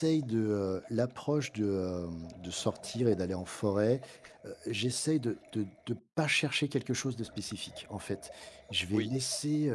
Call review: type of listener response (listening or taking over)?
listening